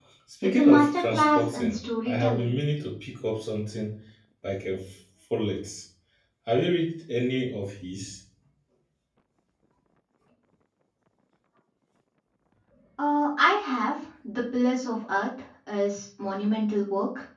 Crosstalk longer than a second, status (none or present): present